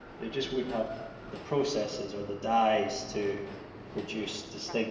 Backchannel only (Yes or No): Yes